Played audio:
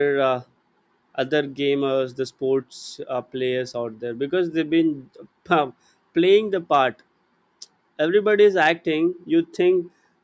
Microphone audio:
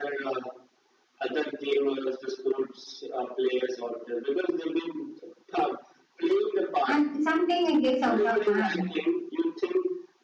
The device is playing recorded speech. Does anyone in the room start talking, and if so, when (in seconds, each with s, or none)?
6.9 s